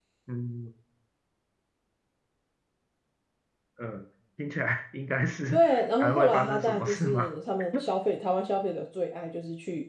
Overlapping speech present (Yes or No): Yes